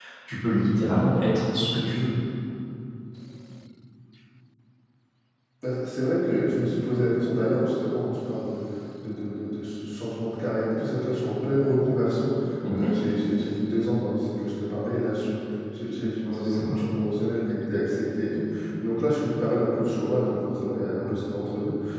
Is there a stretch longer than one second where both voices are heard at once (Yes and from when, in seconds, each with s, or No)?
No